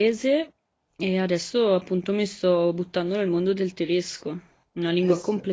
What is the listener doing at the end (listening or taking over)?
listening